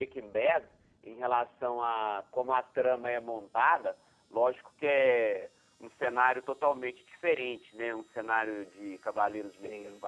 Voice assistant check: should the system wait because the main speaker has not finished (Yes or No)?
Yes